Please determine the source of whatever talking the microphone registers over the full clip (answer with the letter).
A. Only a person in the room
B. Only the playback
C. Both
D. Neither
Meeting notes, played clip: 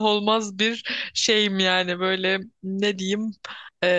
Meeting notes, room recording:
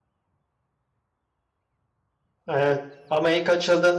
A